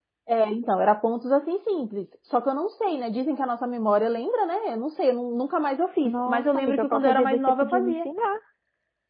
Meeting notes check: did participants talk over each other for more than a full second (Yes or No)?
Yes